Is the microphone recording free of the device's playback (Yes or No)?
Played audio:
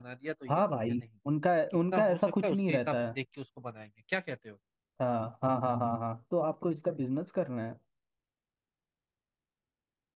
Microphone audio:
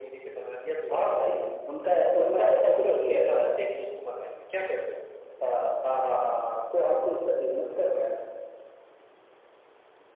No